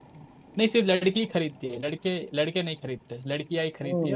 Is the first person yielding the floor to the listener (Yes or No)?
Yes